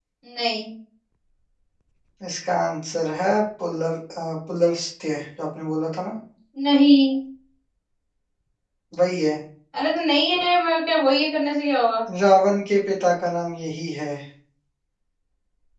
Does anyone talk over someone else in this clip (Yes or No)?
No